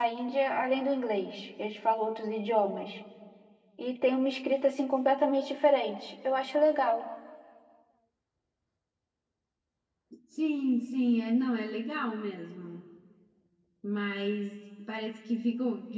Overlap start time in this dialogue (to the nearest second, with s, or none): none